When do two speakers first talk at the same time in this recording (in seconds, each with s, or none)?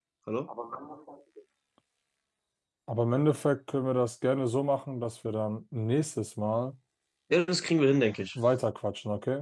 none